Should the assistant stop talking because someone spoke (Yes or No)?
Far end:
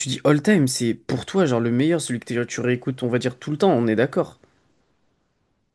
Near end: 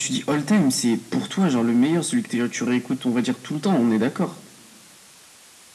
No